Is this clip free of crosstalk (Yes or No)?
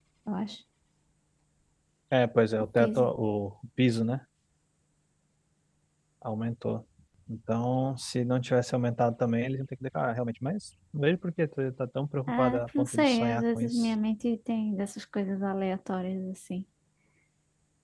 No